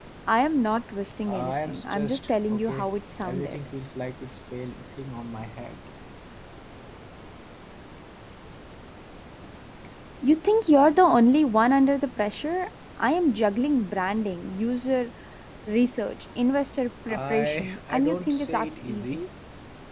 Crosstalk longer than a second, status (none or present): present